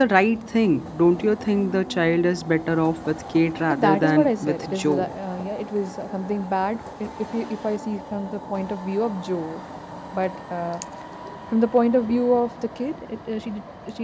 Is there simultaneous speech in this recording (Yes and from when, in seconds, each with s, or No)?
Yes, from 3.7 s